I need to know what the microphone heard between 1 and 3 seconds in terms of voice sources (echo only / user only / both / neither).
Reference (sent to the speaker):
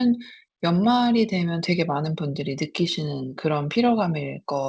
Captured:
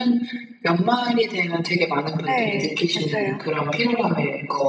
both